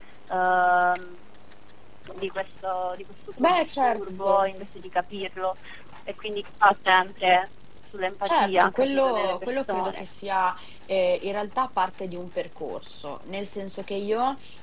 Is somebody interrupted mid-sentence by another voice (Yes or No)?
Yes